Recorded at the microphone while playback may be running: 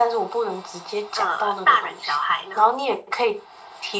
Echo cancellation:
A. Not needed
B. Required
B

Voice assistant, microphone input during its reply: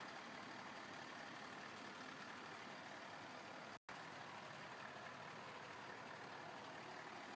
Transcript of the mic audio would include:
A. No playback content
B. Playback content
A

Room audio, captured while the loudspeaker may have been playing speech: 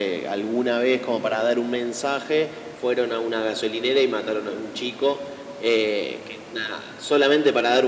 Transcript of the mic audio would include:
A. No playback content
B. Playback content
B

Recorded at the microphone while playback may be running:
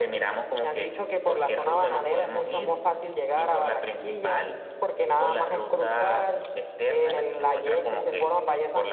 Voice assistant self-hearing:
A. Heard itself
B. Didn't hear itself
A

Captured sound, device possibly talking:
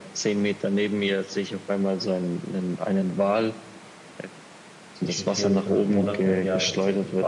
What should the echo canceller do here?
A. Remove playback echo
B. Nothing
A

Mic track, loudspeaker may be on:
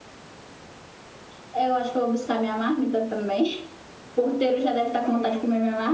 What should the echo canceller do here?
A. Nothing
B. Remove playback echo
B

